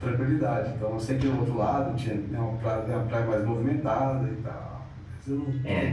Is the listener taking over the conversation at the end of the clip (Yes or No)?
Yes